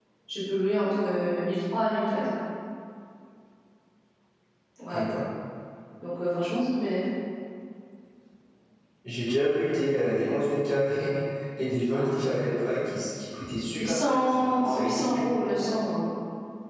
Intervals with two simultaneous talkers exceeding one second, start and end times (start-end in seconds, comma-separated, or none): 13.8-15.2